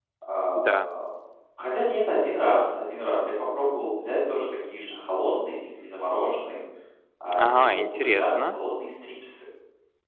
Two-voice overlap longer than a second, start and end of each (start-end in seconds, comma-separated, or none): 7.4-8.6